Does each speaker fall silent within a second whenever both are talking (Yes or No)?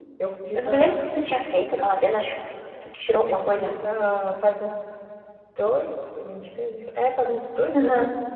Yes